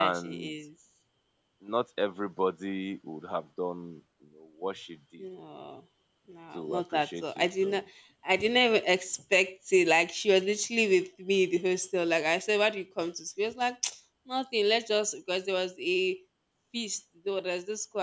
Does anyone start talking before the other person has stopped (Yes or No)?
Yes